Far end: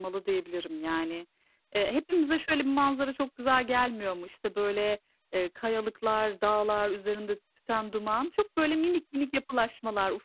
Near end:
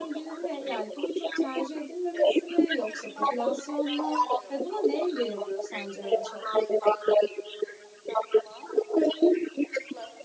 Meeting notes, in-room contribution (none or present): present